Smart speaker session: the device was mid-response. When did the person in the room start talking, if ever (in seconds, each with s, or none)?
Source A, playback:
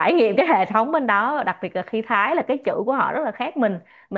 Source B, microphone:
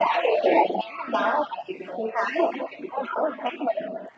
none